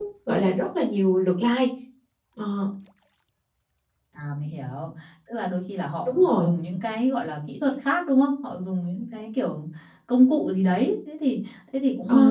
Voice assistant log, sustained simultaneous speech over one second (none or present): none